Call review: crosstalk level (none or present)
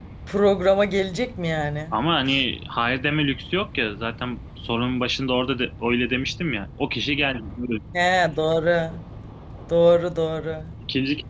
none